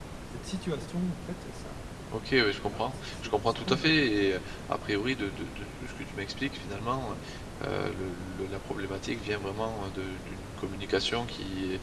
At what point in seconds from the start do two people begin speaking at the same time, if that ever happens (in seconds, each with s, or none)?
2.7 s